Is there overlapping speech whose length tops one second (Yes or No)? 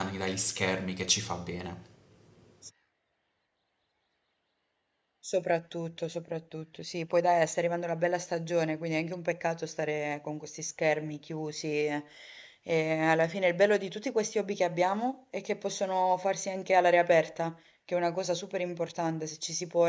No